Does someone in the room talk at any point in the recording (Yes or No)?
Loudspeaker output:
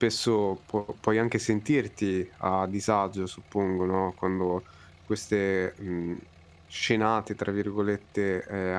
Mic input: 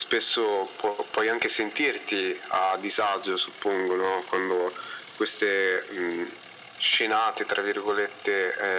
No